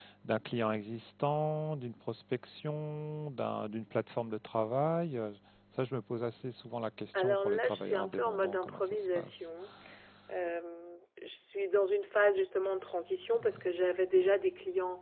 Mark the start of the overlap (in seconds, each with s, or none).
7.2 s